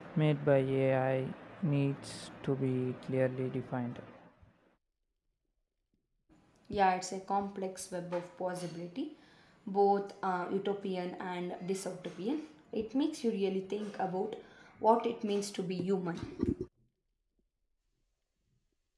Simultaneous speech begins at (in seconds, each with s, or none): none